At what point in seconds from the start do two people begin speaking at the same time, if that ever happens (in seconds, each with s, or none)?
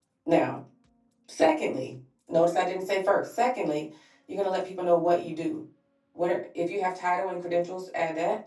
none